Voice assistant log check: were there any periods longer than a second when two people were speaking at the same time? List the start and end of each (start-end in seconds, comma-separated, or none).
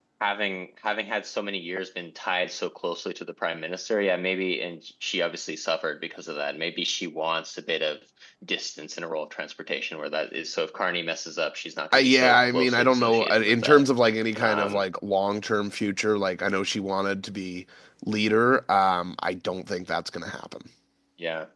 11.9-13.8